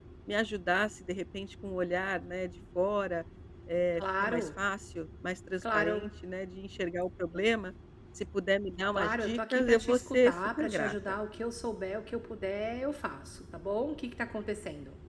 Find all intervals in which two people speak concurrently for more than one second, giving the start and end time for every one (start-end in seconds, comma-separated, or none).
8.9-11.2